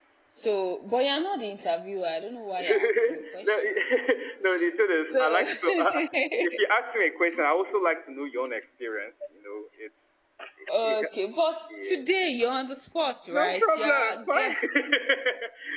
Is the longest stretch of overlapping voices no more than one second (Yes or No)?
No